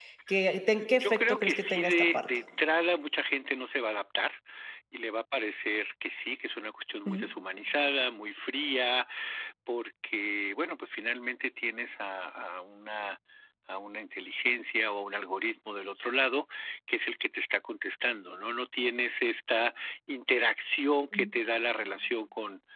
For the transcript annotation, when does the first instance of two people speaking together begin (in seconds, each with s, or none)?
1.0 s